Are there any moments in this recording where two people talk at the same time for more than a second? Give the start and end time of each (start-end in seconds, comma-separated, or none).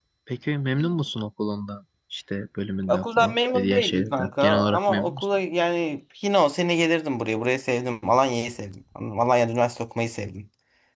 2.9-5.2